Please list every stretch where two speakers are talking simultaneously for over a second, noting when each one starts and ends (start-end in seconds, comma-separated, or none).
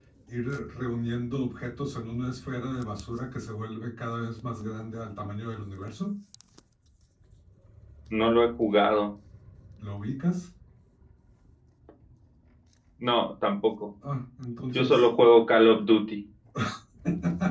none